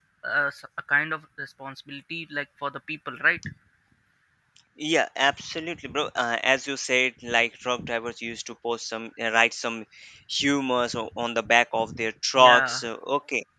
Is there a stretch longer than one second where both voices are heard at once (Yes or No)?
No